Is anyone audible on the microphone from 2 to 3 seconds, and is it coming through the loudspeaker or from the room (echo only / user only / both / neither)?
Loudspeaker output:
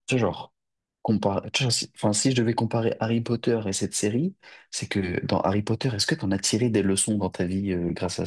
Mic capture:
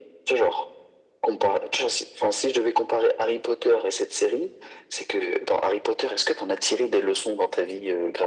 echo only